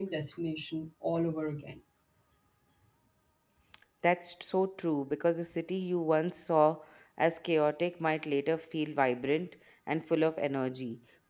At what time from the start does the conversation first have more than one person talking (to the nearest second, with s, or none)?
none